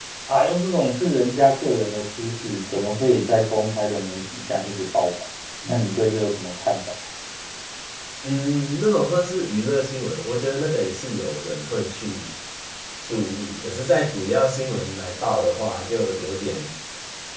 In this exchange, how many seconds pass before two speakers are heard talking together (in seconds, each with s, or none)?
none